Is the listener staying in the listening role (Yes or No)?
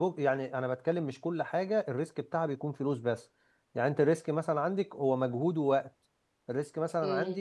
Yes